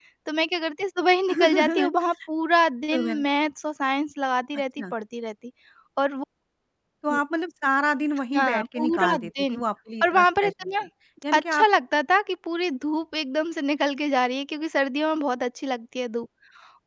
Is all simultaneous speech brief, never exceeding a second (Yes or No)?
No